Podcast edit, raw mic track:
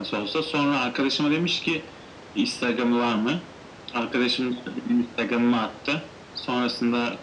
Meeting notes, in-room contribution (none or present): none